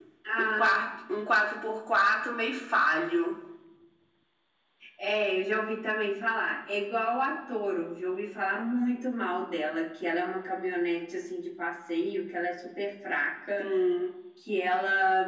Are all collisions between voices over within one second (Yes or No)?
Yes